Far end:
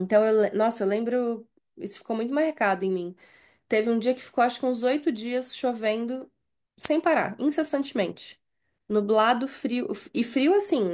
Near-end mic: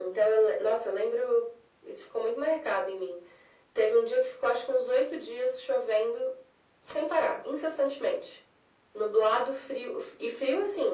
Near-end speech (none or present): none